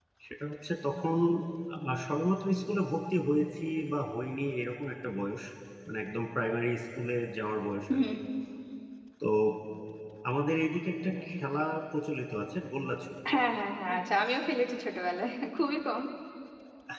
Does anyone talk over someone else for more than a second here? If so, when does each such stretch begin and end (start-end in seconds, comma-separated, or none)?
none